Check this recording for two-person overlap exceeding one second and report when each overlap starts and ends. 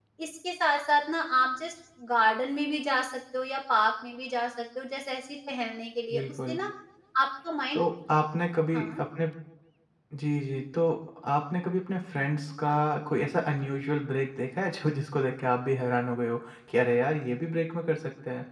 none

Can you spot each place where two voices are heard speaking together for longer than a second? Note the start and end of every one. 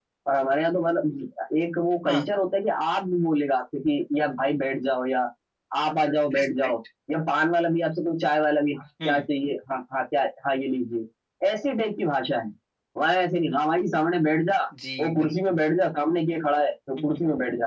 none

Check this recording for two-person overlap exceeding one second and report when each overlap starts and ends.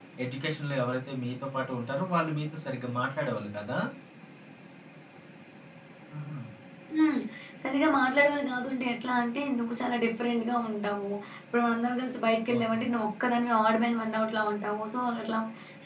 none

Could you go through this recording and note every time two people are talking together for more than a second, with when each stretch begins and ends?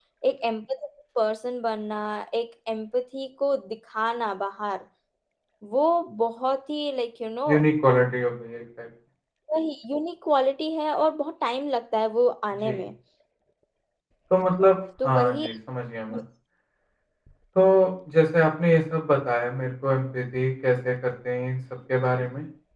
none

